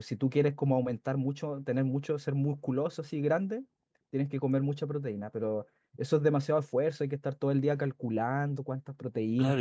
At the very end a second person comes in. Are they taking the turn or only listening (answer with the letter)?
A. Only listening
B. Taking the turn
B